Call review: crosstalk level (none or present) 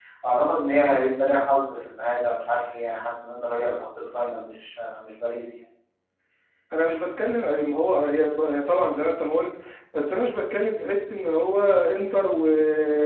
none